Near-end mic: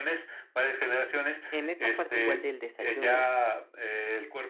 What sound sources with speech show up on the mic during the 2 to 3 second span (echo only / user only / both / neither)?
both